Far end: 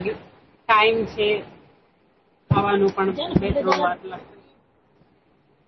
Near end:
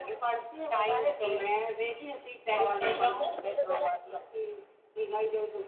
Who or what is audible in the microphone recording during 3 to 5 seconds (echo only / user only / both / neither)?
both